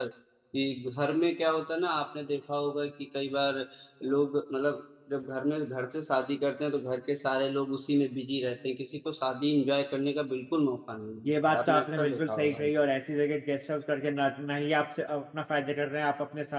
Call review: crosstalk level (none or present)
present